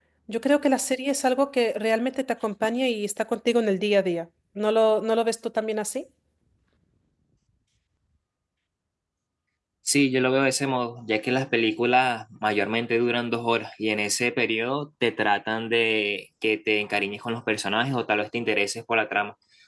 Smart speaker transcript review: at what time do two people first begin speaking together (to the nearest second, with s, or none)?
none